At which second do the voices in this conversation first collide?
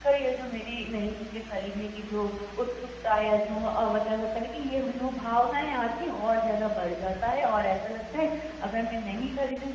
none

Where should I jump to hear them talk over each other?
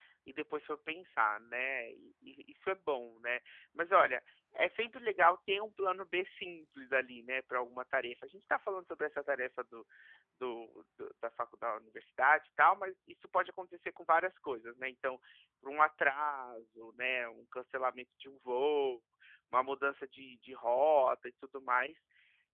none

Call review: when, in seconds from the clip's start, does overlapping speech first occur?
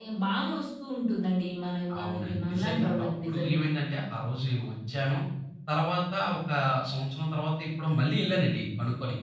1.9 s

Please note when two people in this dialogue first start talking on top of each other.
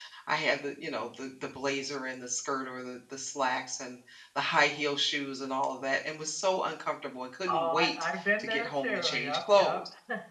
7.5 s

